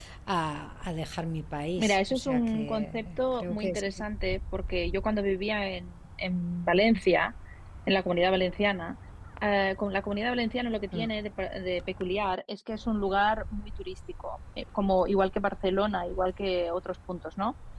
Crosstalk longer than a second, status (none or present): present